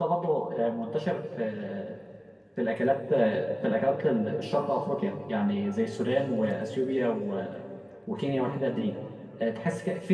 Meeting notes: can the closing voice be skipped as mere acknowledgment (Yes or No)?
Yes